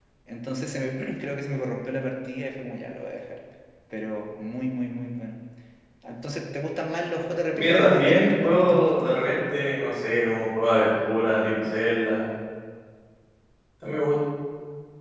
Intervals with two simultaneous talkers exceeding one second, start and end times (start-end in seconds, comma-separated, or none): 7.5-9.1